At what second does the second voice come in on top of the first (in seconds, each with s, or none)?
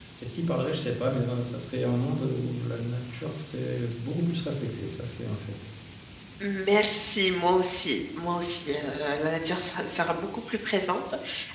none